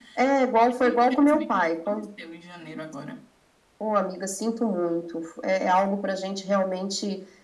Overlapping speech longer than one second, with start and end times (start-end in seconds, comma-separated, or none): 0.7-2.1